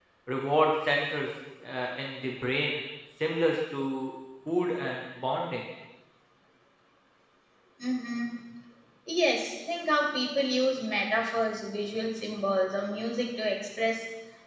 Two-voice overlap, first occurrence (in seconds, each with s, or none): none